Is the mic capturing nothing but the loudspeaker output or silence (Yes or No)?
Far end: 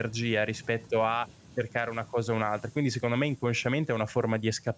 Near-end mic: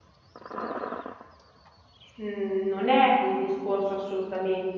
No